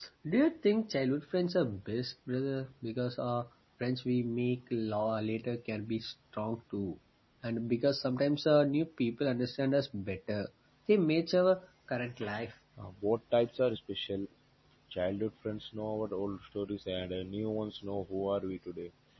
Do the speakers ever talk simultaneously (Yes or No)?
No